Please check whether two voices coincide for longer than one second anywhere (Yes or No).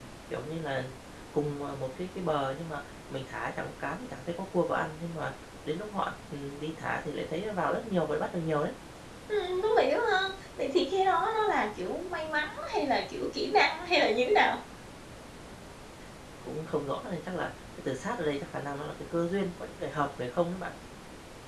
No